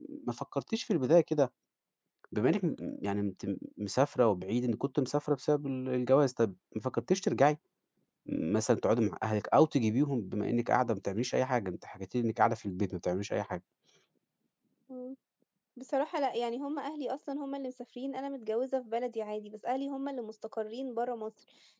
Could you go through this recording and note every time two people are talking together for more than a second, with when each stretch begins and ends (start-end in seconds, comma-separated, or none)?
none